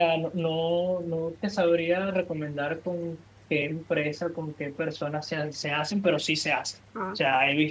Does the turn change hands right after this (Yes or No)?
No